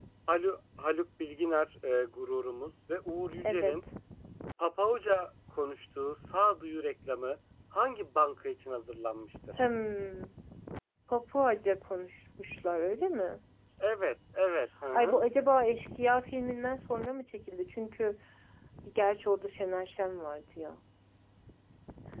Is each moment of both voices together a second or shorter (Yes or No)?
Yes